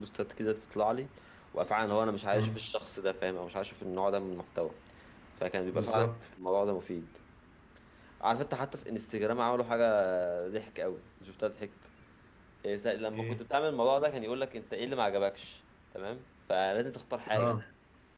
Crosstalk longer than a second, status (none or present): none